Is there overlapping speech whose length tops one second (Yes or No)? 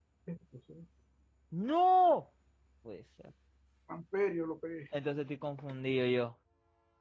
No